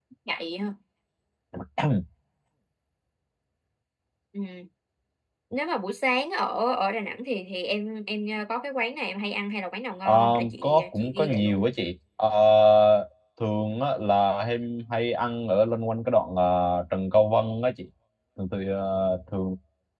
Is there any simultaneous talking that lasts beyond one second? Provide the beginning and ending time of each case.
10.1-11.7

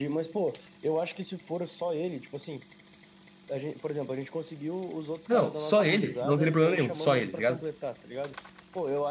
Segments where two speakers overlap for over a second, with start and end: 5.3-7.6

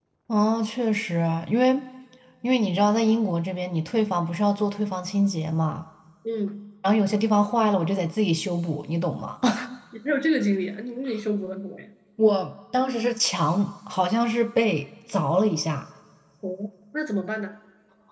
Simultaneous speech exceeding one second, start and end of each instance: none

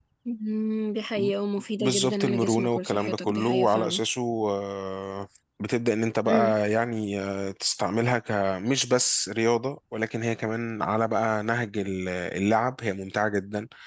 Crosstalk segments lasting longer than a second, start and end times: 1.8-4.0

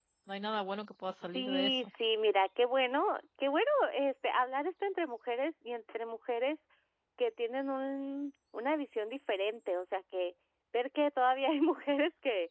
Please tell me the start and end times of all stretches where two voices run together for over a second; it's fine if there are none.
none

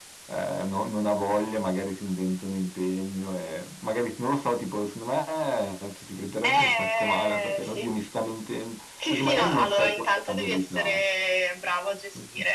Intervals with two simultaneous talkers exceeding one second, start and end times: 6.4-7.9, 9.1-11.0

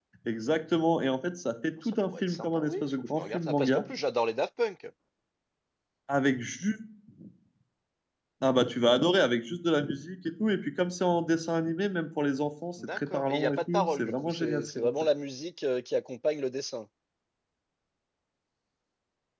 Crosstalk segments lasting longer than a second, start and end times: 1.9-3.8, 12.9-14.9

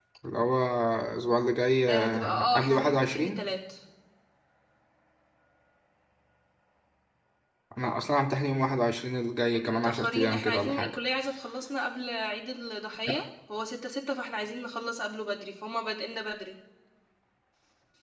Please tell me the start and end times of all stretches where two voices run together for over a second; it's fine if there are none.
1.9-3.4, 9.5-11.0

